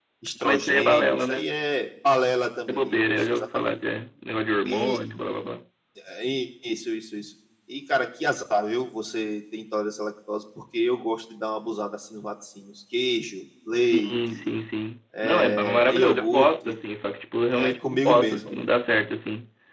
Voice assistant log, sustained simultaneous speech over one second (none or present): present